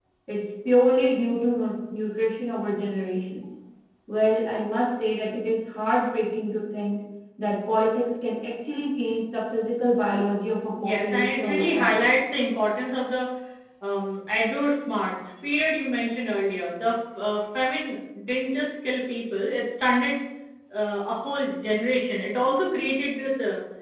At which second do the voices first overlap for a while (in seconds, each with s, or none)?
10.8 s